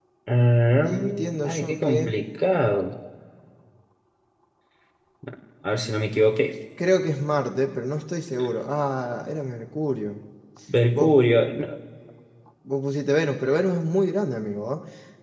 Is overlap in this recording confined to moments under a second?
No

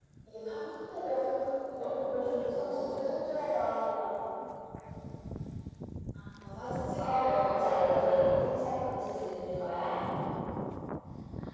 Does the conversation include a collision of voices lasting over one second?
Yes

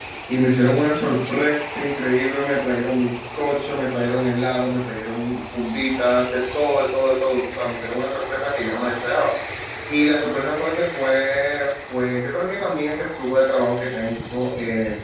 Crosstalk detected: No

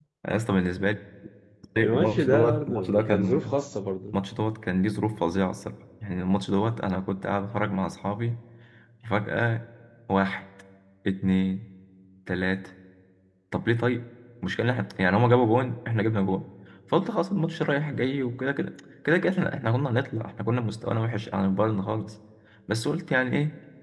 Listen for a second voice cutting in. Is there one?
Yes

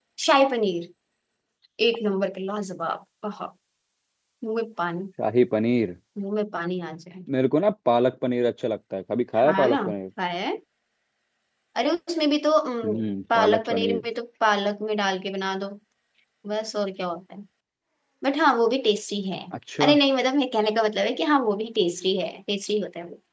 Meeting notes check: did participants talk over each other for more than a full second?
Yes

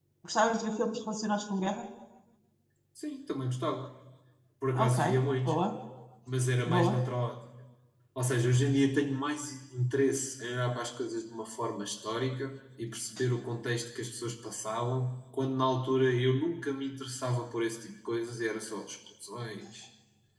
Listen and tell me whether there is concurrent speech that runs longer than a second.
No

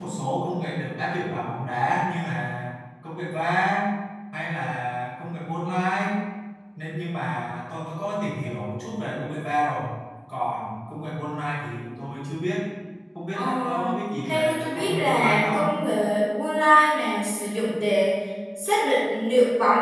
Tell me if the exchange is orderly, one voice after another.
No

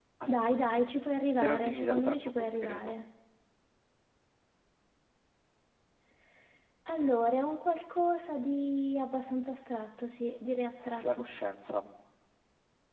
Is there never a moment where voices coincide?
No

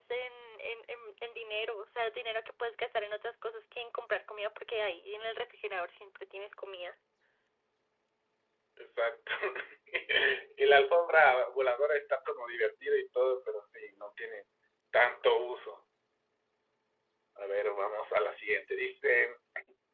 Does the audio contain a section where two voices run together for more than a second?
No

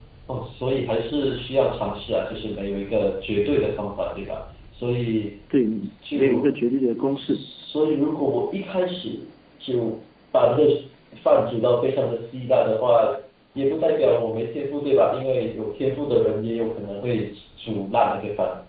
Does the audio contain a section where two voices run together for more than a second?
No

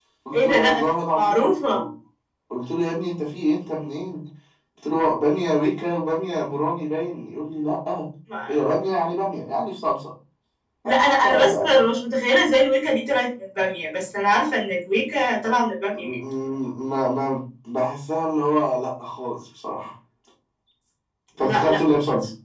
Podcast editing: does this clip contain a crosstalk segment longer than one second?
Yes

